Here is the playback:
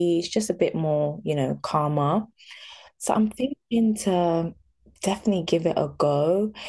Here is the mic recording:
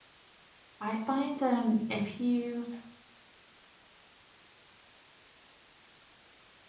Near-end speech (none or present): present